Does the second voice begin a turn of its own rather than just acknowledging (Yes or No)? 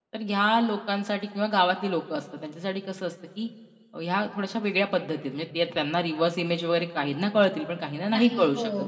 No